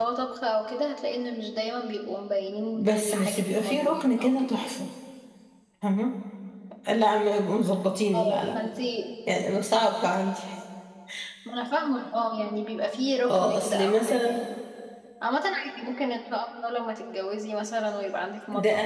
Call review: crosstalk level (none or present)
present